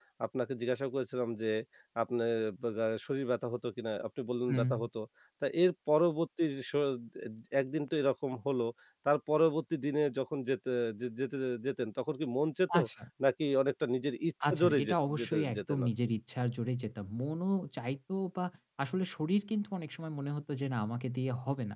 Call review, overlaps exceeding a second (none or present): present